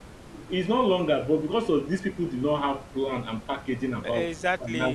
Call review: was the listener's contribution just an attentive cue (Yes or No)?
Yes